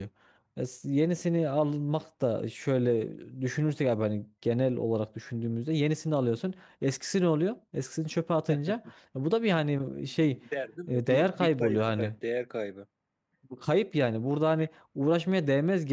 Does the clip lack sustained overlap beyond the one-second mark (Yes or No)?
No